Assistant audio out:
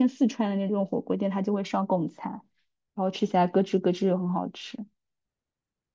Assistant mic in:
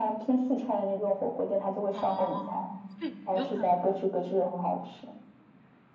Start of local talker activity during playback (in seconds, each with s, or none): 1.9 s